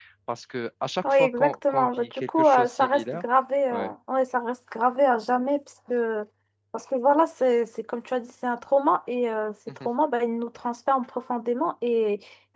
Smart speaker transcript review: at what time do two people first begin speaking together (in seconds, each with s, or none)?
1.1 s